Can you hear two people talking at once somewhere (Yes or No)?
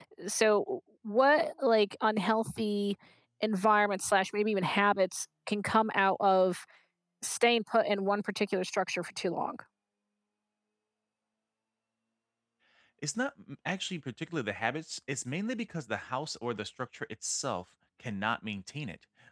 No